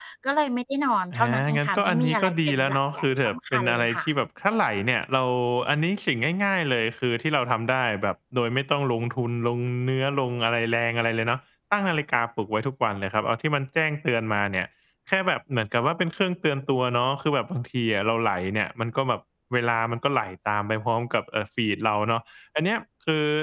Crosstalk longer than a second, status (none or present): present